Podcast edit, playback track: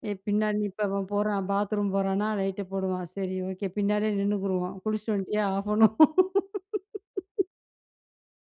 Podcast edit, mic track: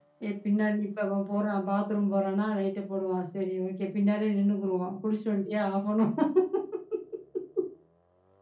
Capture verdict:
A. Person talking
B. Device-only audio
B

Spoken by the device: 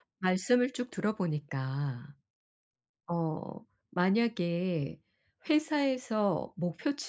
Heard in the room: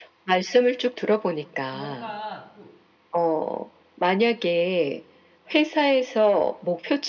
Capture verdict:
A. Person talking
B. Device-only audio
A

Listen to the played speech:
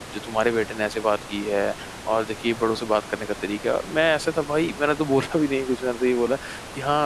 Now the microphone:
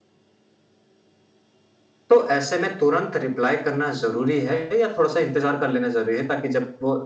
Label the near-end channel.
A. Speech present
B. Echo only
A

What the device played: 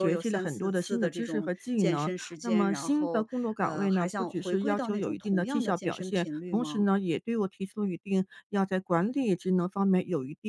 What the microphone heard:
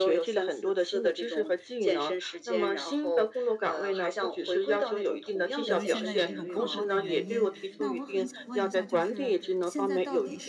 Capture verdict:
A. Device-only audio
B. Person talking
B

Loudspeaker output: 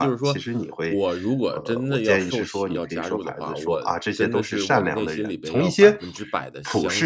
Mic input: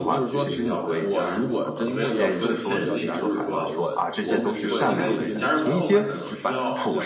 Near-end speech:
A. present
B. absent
A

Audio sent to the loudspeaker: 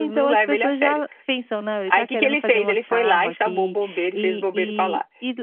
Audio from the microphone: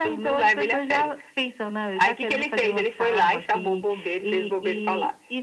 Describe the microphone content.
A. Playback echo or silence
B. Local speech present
A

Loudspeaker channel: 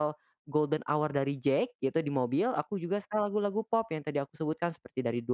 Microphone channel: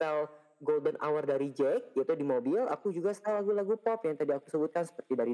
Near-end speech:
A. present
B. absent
B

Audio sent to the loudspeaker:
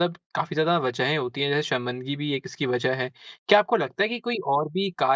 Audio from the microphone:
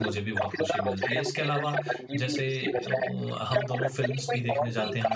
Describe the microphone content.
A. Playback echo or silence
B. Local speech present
B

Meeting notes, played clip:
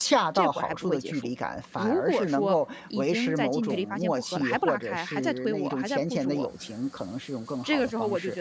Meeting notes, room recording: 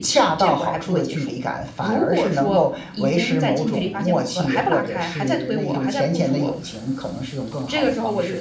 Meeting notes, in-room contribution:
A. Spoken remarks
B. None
B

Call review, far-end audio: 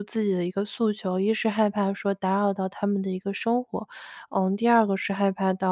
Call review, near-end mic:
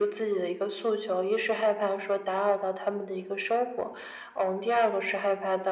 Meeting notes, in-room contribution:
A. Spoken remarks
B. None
B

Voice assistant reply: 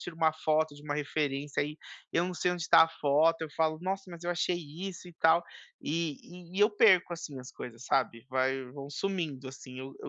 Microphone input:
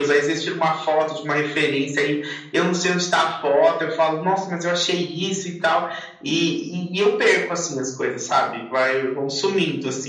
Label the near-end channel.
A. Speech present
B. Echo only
B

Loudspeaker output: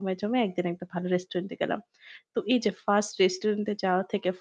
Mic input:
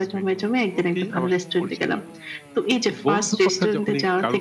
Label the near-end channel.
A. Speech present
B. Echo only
A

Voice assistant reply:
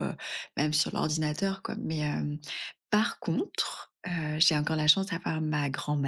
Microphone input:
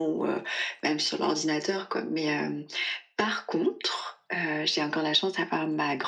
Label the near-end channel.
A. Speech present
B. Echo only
B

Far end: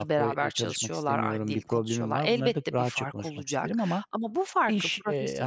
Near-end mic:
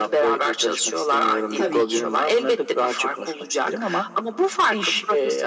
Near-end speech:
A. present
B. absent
A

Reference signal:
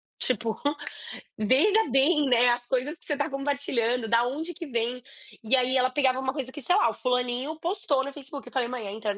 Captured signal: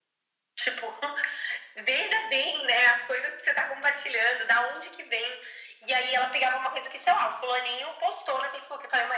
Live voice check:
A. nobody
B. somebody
A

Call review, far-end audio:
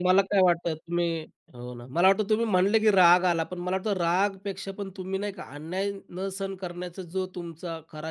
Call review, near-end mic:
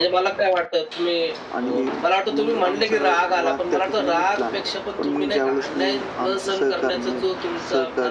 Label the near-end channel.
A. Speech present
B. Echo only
A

